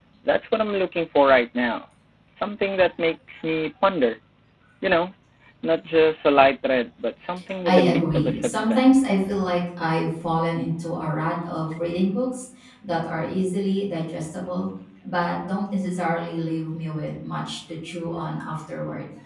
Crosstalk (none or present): present